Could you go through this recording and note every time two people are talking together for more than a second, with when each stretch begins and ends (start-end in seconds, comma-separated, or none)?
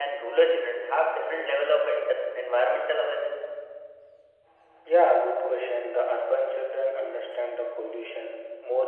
none